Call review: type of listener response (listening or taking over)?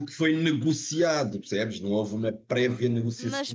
taking over